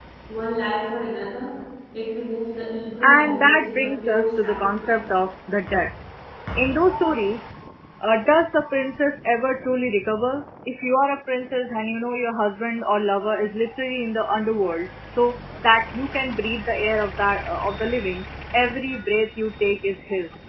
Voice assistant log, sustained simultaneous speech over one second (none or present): present